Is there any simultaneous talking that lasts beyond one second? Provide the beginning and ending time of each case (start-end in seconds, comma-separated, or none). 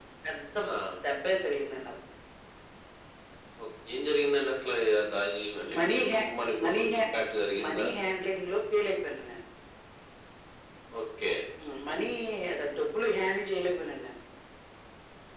none